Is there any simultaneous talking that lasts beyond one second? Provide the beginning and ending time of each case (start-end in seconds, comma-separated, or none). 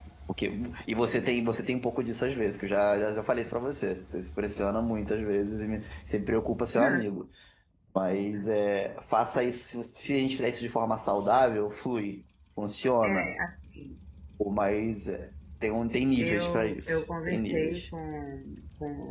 16.2-17.9